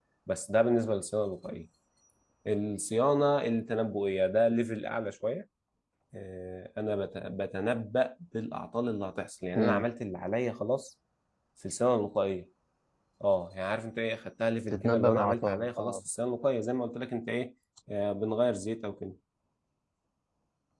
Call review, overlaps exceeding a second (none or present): present